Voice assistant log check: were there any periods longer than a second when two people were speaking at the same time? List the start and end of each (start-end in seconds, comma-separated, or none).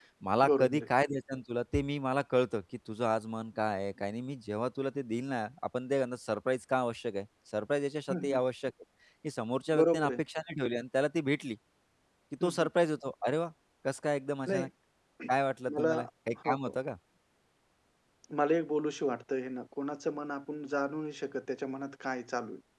none